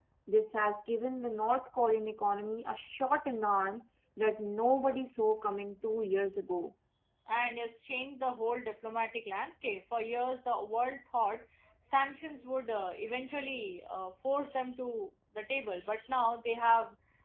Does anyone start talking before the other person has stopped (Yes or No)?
No